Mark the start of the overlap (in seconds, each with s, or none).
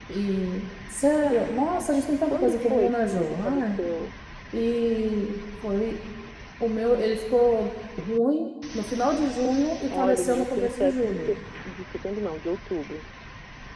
2.3 s